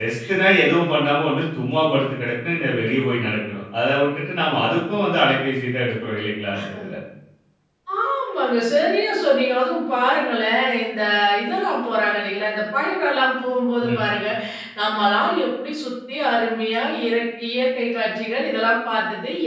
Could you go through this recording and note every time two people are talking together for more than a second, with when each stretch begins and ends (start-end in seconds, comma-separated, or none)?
none